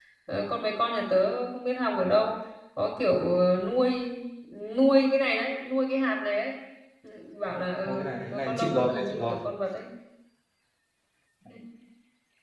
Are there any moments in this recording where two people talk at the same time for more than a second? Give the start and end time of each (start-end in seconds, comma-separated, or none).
7.8-9.3